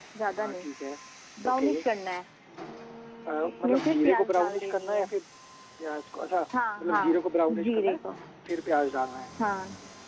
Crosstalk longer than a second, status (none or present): present